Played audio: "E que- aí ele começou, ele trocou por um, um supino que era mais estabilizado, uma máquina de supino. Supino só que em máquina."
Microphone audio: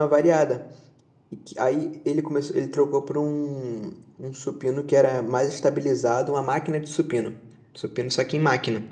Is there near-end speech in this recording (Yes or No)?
No